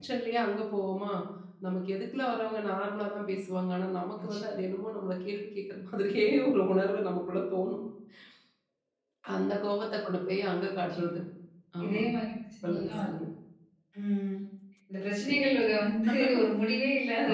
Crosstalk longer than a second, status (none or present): none